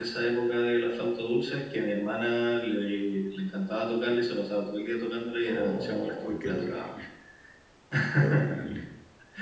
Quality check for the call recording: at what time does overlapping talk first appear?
5.5 s

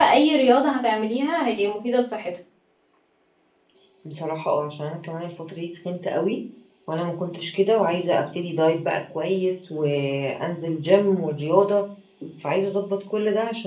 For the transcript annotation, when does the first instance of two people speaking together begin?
none

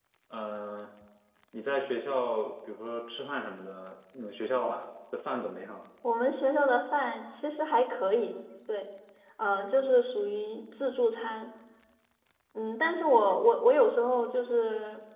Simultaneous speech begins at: none

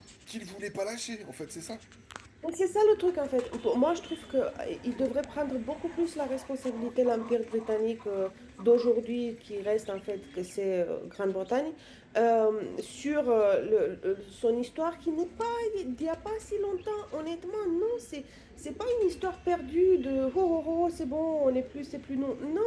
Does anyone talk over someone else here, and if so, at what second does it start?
none

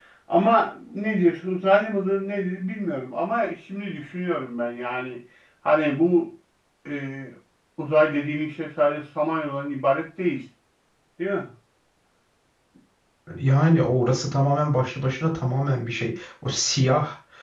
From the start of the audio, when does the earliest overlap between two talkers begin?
none

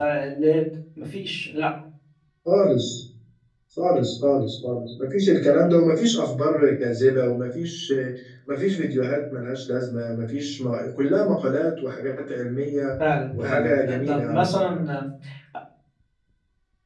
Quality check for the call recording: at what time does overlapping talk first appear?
13.3 s

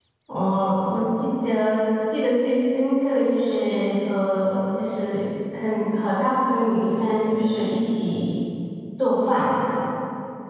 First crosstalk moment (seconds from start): none

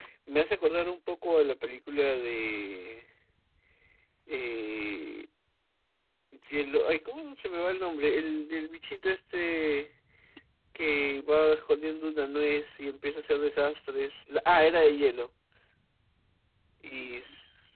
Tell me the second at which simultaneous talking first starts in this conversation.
none

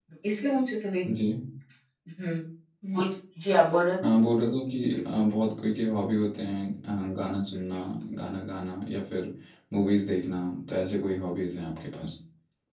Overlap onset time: none

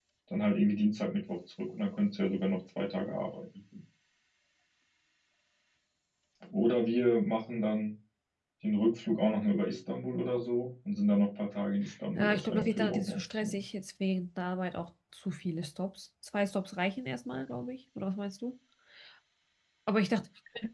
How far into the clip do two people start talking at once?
12.2 s

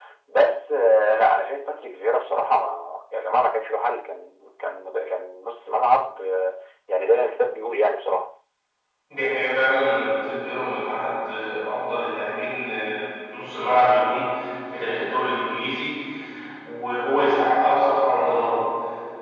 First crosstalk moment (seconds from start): none

